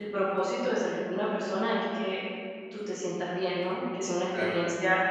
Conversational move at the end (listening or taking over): listening